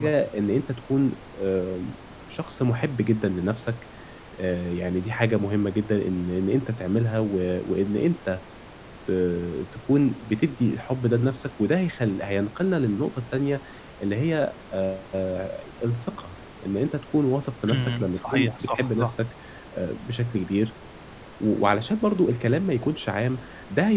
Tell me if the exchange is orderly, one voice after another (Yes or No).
No